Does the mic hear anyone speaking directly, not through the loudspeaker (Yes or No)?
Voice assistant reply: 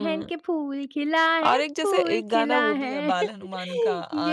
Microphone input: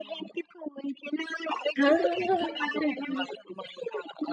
Yes